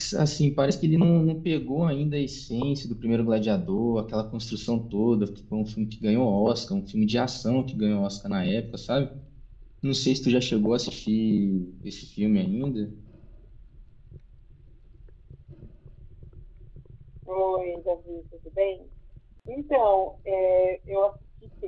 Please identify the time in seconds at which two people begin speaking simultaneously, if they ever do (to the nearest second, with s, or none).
none